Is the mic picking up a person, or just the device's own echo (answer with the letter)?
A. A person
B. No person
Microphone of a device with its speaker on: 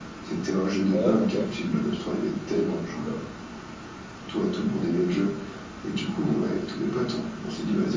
A